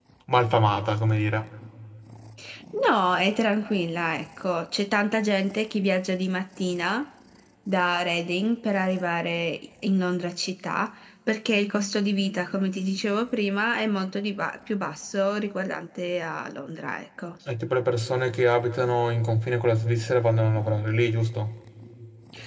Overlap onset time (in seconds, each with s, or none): none